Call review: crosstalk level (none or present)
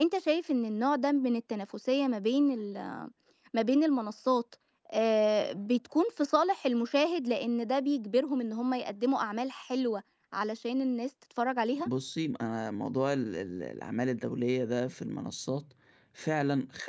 none